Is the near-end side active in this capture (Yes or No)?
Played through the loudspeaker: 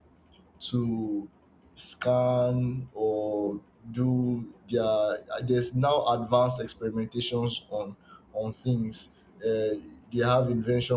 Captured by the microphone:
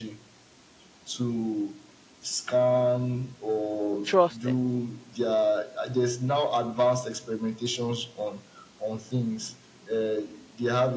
Yes